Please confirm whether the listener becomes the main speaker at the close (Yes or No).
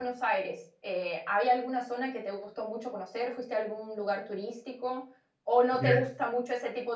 No